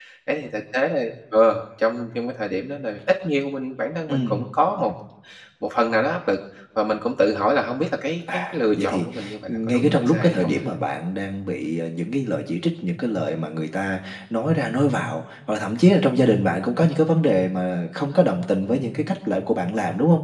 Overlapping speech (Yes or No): Yes